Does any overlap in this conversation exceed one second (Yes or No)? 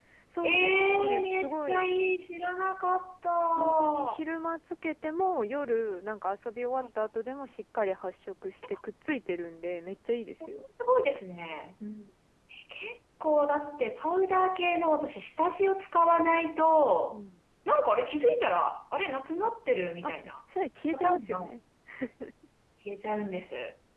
Yes